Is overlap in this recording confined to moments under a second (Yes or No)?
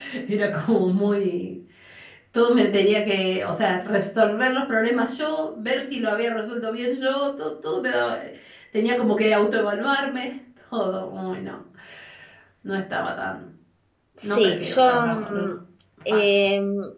No